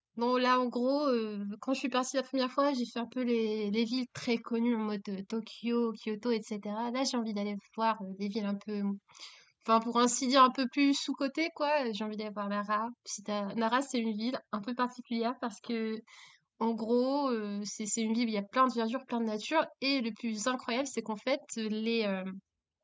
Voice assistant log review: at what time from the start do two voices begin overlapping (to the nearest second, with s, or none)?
none